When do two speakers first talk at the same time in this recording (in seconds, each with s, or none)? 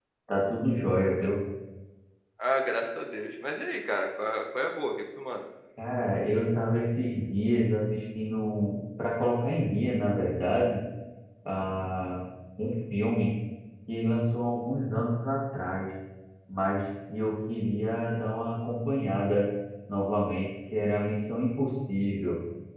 none